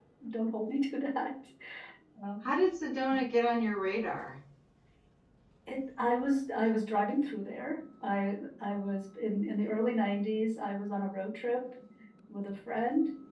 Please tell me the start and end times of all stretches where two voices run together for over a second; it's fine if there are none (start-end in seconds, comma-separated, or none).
none